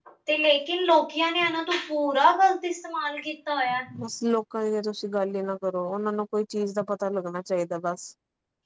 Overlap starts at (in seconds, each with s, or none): none